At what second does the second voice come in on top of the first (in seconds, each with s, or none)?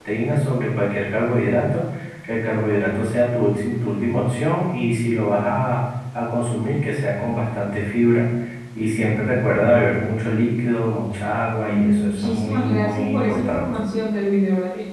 11.7 s